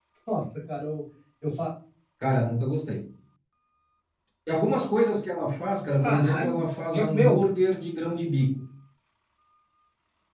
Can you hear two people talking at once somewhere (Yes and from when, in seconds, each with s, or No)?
Yes, from 6.0 s